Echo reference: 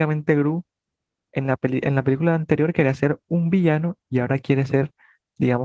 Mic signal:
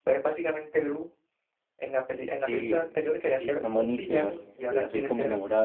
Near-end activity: present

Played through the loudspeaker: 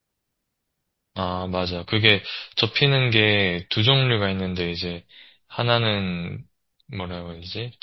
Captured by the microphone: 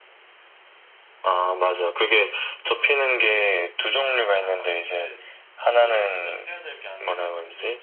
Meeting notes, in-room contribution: present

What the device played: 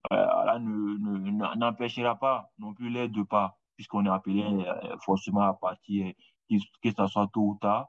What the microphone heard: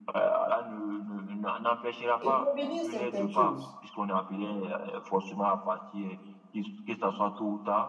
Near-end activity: present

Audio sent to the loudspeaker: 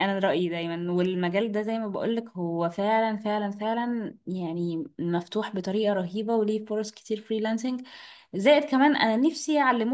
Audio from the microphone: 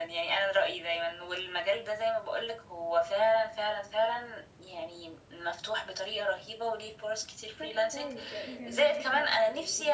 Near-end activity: present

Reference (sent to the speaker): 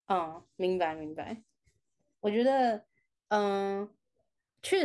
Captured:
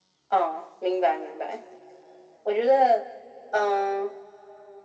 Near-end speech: none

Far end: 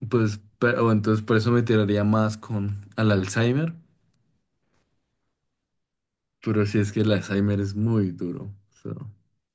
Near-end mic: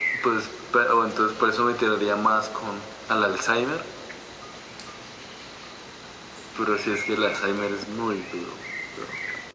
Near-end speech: none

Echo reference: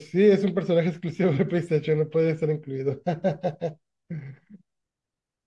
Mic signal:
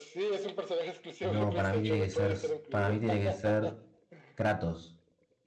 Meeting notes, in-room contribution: present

